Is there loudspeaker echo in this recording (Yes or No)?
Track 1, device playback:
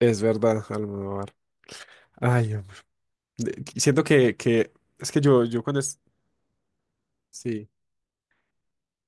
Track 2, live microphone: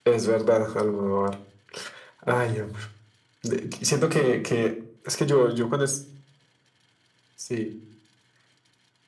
Yes